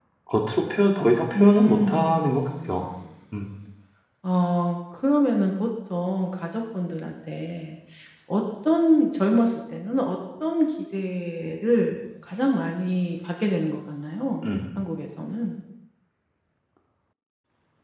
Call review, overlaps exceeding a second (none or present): present